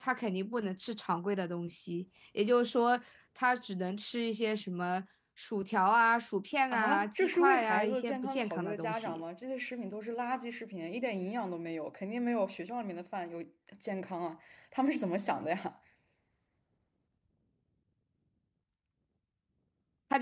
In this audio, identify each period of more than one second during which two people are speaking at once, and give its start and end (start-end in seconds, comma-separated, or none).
6.7-9.2